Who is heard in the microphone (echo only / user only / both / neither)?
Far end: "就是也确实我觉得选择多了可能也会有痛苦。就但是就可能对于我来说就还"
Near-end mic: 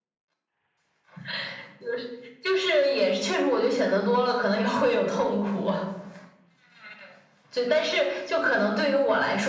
echo only